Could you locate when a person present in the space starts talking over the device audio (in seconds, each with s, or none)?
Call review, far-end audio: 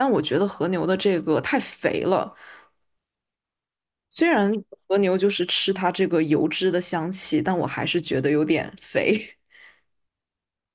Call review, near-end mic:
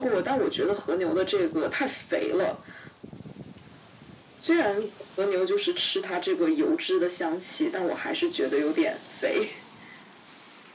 none